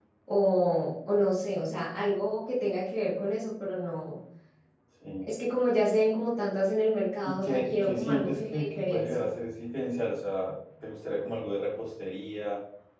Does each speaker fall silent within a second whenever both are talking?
No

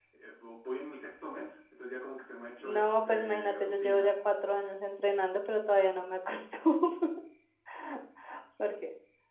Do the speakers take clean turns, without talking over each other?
No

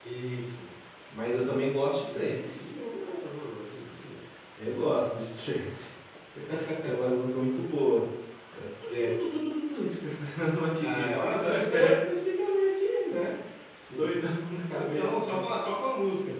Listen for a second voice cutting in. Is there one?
Yes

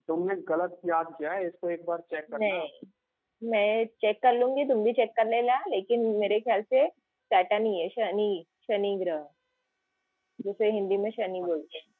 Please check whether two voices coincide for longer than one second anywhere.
No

